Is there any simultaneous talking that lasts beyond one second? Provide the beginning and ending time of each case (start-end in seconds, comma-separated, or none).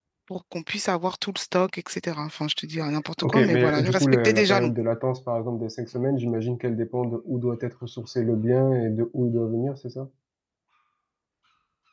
3.2-4.7